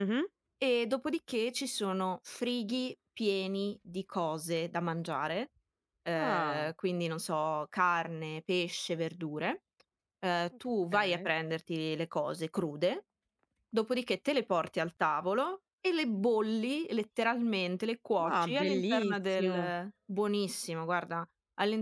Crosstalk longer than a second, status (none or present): present